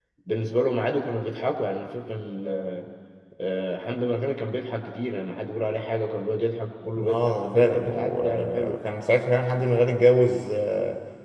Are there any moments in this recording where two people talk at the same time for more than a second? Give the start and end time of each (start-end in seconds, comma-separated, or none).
7.0-8.8